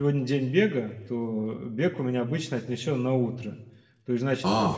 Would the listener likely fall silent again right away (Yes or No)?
No